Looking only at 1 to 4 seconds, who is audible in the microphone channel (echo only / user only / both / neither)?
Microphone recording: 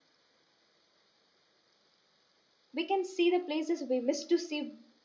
user only